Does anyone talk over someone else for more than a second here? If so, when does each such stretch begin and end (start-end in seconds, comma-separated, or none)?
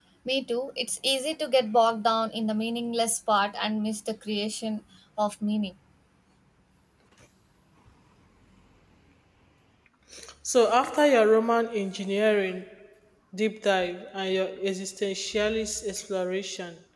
none